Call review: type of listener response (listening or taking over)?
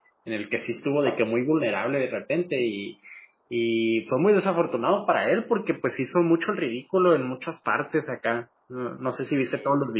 listening